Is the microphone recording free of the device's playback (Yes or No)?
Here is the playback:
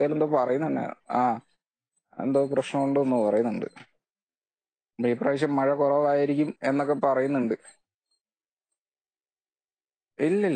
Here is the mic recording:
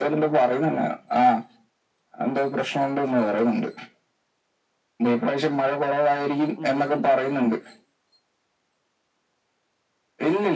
No